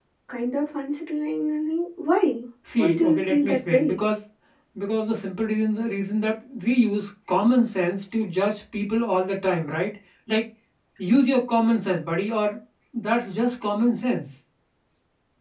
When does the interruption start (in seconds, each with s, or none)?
2.7 s